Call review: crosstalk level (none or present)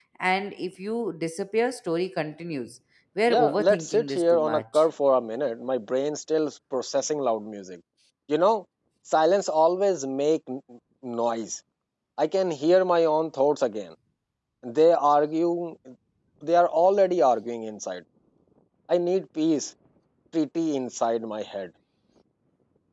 present